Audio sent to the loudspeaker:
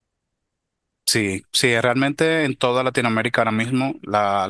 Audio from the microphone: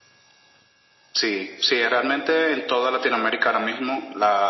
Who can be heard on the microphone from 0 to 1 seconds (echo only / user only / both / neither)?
neither